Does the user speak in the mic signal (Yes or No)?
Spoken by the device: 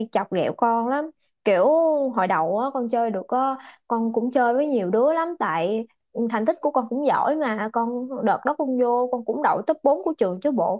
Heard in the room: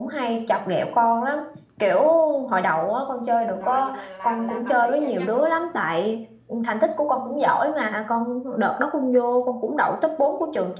Yes